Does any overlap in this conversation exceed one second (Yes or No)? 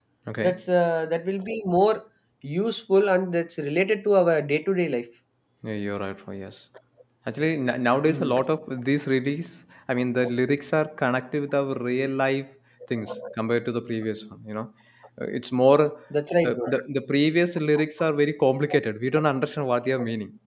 No